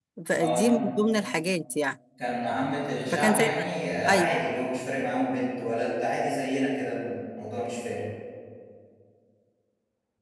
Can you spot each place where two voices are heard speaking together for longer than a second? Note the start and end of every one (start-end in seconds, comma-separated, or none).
none